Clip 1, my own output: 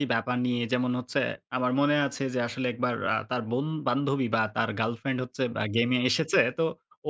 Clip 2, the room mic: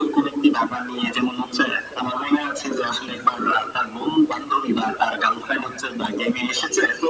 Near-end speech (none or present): none